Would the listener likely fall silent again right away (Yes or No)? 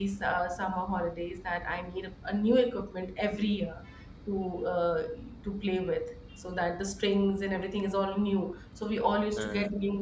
Yes